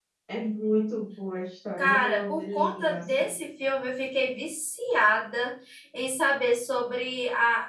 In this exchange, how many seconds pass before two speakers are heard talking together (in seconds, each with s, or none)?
1.8 s